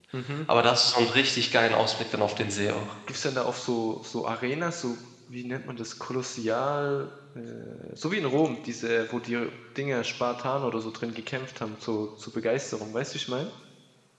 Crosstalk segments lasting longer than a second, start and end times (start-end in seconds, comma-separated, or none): none